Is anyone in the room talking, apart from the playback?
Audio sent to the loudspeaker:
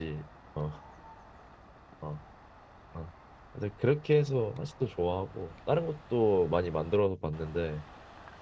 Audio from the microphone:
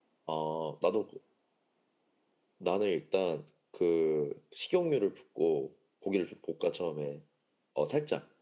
Yes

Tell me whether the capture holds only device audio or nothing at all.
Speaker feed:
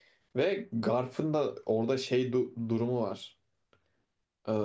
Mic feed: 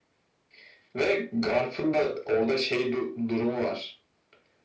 Yes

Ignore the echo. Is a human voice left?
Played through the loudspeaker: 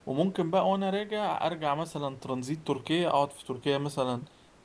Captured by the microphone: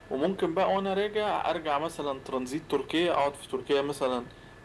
No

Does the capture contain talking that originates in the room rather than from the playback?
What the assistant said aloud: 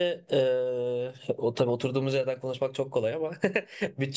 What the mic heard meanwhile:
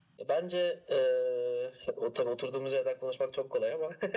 No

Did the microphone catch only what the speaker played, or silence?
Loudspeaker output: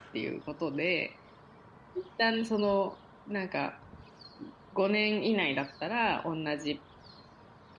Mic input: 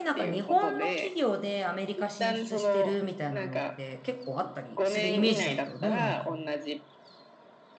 No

